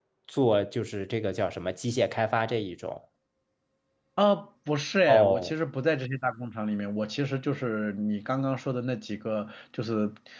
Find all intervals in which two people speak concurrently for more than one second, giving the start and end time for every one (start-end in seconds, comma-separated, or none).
none